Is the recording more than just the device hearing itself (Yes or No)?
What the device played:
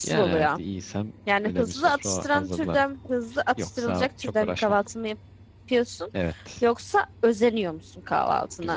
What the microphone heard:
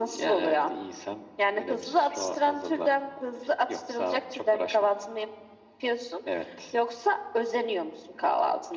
No